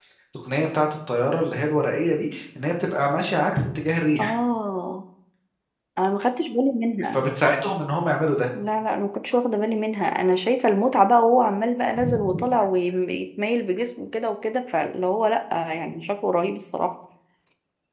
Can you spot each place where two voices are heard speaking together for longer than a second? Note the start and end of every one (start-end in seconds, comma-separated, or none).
none